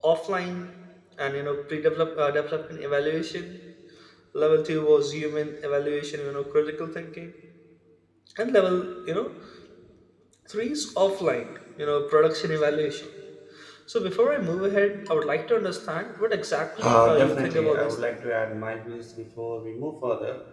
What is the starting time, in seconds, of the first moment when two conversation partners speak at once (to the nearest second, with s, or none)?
17 s